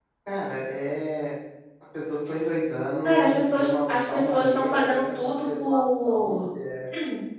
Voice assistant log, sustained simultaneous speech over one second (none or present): present